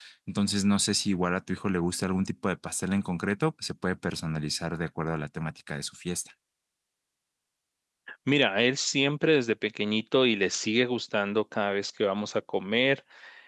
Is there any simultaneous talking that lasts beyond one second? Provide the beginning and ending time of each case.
none

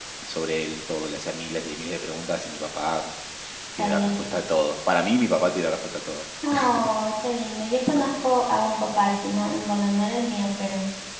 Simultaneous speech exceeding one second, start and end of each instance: none

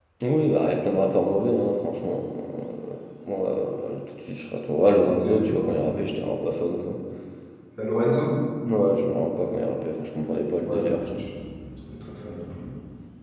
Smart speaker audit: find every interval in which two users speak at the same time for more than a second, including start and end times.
4.8-6.0

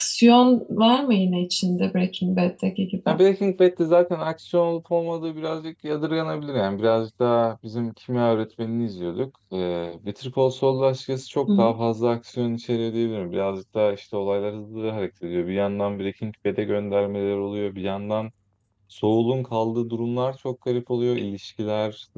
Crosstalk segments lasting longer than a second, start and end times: none

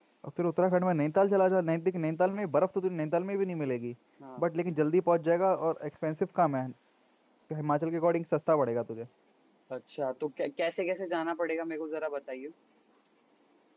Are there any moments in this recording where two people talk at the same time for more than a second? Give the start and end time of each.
none

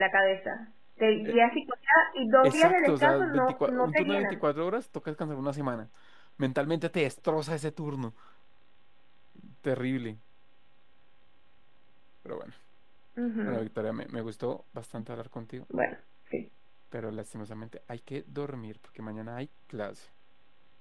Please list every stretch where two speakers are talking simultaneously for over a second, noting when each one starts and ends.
2.5-4.4

